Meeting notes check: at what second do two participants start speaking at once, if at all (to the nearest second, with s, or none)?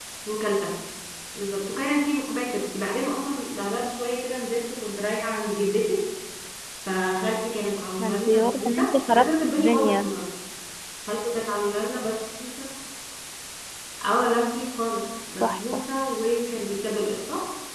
8 s